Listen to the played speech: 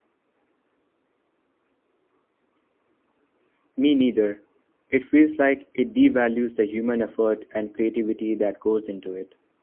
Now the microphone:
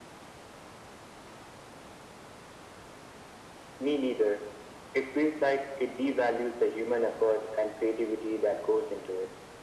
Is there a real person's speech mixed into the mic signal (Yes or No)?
No